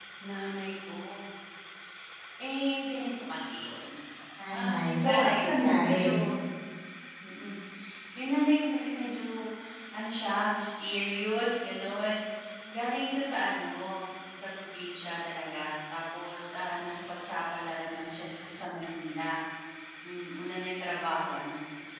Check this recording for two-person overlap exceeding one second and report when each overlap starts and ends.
4.5-6.1

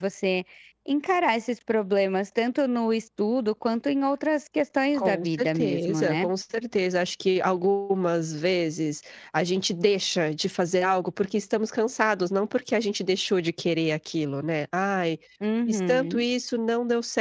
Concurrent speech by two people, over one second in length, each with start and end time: 5.0-6.3

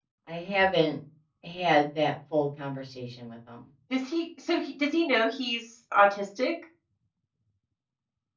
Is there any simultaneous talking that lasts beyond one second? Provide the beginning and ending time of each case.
none

